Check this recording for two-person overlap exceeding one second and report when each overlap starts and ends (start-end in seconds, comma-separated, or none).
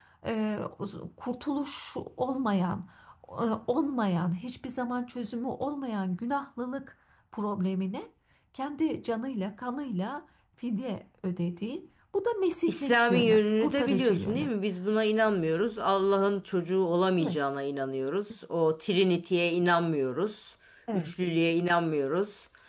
12.7-14.5